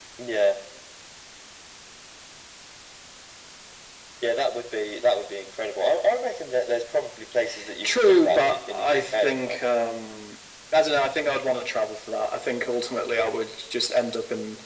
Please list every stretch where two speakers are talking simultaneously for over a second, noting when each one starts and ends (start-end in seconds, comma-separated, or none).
7.8-9.6